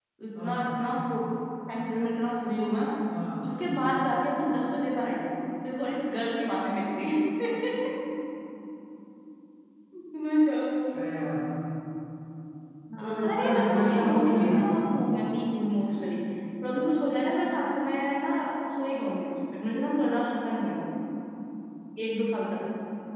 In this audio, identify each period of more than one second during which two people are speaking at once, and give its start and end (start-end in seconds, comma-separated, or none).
13.0-14.8